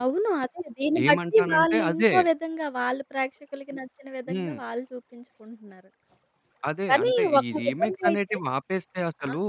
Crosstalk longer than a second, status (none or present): present